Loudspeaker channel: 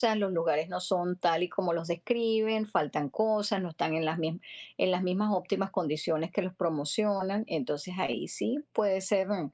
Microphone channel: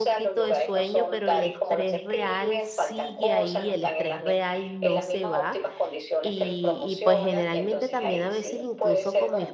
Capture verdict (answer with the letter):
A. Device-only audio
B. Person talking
B